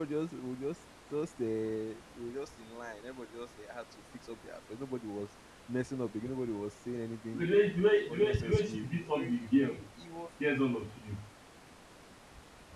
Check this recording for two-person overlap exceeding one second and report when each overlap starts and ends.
7.9-9.8

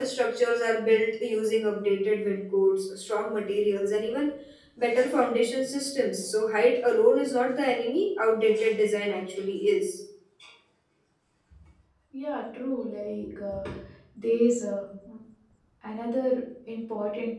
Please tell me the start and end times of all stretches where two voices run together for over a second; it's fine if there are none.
none

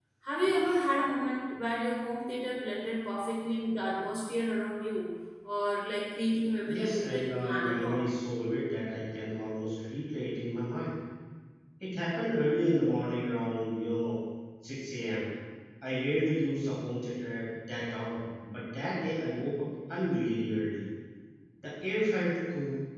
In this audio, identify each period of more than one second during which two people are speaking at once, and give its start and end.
6.7-8.0

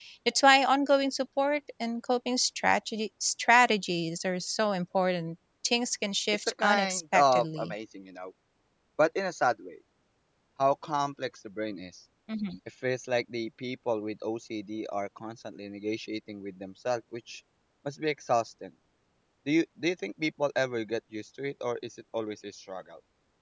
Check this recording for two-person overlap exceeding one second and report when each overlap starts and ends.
6.3-7.7

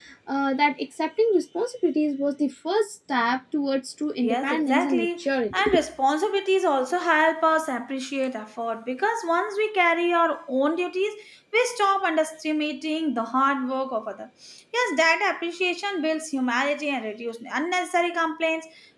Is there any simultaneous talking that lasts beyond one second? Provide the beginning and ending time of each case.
4.2-5.6

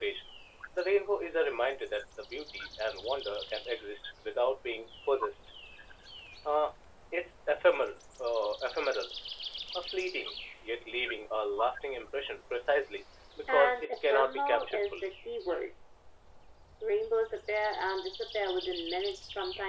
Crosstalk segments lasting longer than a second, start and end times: 13.5-15.1

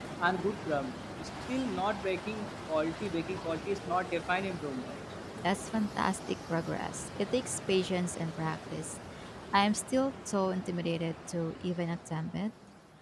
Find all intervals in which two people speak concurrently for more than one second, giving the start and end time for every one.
none

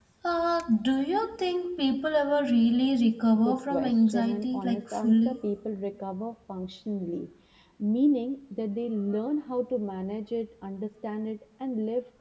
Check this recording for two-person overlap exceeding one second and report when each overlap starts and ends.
3.4-5.3

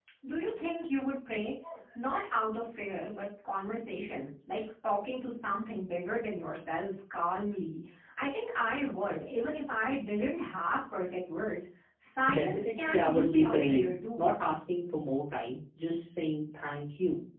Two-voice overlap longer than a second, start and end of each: 12.3-14.3

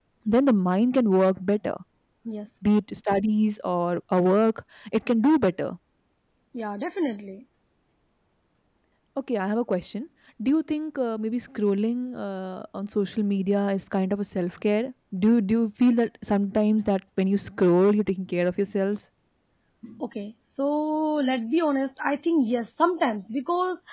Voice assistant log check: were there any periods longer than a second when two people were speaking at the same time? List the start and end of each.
none

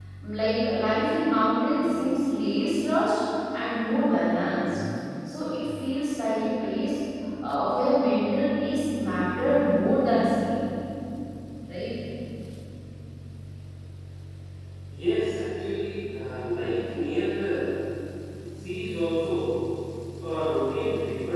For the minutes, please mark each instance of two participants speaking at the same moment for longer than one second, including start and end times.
none

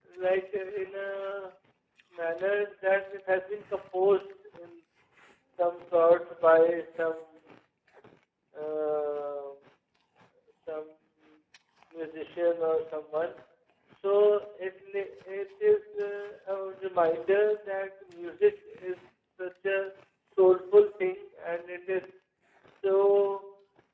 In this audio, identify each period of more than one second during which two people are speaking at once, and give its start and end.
none

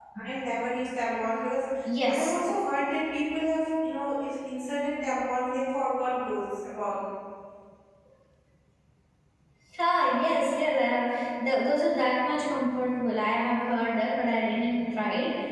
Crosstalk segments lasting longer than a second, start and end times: none

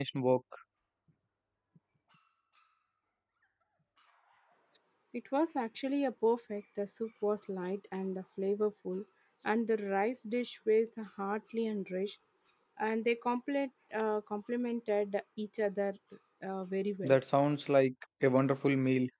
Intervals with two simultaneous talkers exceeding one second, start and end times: none

